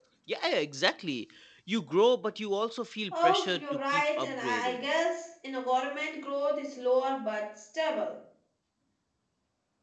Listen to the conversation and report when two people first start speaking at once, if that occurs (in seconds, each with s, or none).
3.1 s